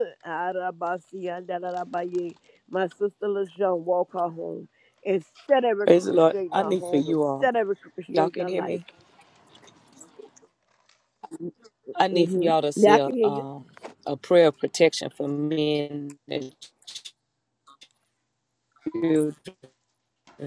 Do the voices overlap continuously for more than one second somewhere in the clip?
Yes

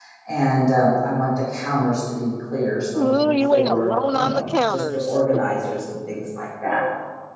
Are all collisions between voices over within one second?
No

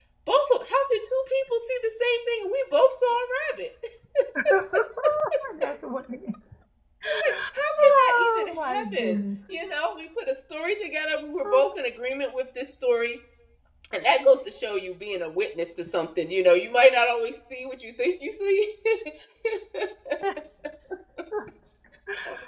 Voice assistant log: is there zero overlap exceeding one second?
No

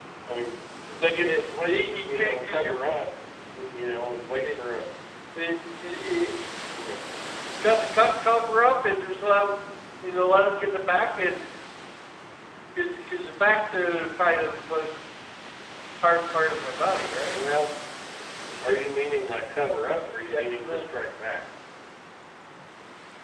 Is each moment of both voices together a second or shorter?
No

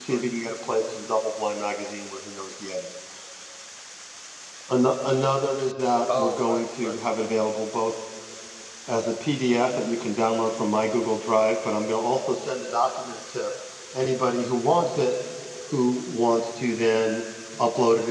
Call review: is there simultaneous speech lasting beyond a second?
Yes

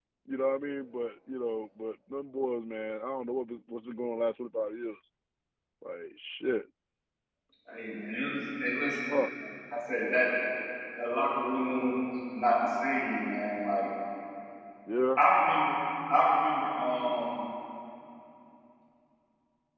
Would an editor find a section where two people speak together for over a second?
No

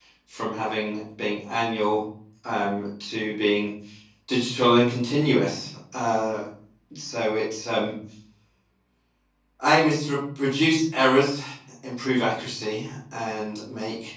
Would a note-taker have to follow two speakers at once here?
No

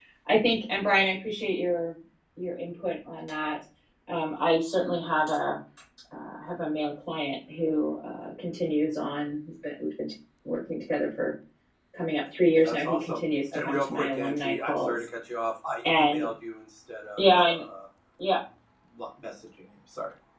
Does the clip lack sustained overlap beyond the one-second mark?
No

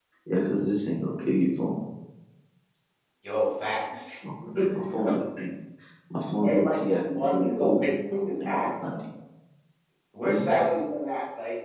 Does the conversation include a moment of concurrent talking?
Yes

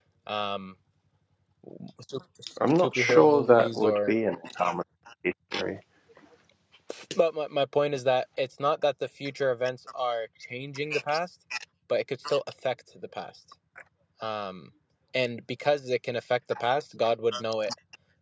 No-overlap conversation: No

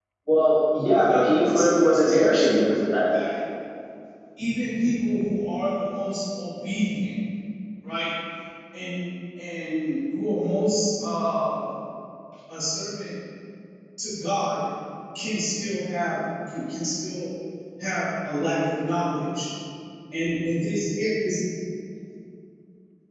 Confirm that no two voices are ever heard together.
No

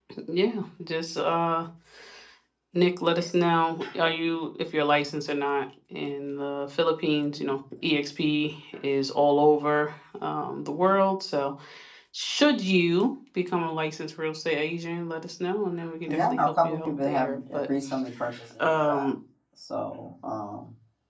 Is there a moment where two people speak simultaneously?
Yes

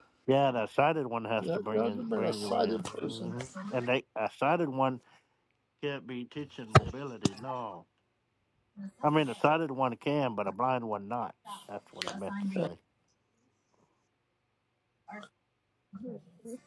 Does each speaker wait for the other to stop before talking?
No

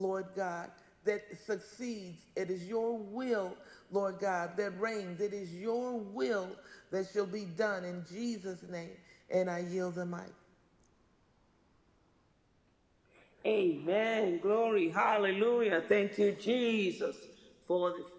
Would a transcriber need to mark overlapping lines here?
No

